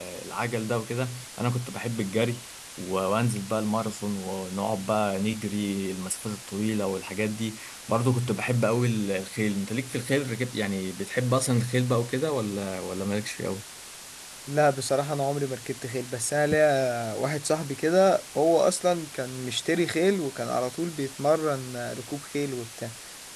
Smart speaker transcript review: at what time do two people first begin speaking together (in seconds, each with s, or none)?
none